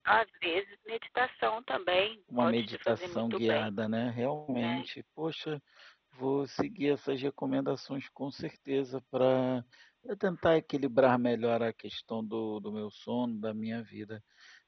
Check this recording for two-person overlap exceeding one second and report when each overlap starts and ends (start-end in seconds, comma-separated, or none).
2.4-3.7